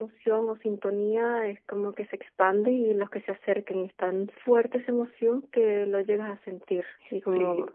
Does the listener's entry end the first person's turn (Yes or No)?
Yes